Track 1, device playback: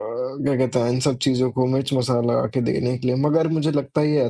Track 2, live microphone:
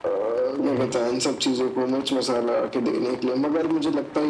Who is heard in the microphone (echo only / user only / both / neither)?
both